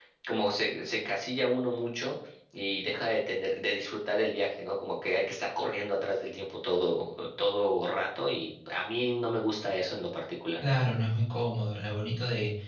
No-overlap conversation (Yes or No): Yes